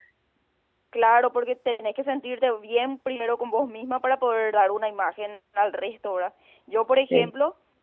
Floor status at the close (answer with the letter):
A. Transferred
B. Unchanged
B